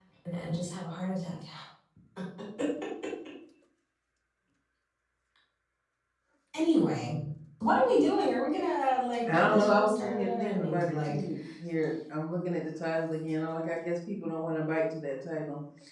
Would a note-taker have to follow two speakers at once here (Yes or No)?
Yes